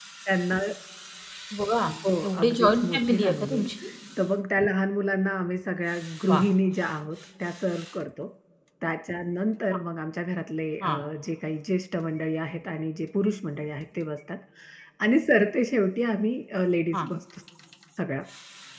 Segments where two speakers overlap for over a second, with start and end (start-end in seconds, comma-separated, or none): 2.2-3.7